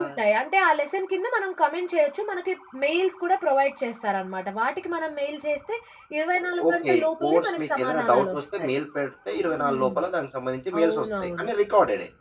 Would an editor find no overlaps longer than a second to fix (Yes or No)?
No